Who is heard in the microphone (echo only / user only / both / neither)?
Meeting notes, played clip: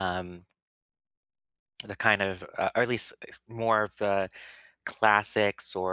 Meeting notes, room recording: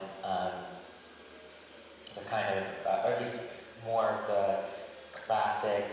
echo only